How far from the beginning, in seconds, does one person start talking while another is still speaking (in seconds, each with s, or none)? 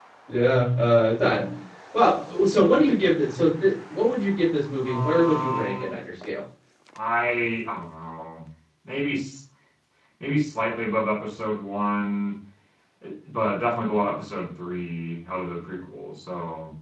4.7 s